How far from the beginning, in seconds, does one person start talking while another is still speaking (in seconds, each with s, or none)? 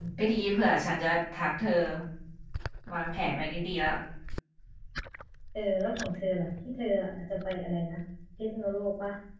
none